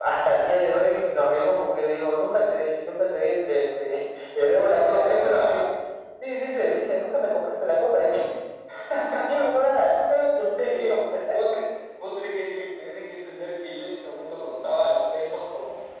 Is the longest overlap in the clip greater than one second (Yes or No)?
Yes